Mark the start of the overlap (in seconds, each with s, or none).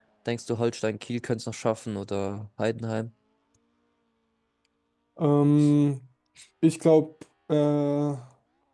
none